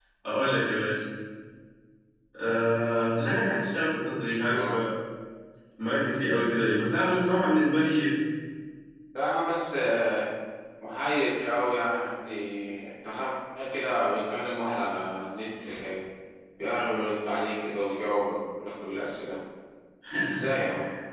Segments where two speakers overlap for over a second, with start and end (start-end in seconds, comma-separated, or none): none